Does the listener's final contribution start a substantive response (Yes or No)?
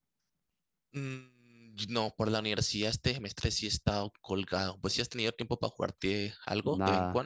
Yes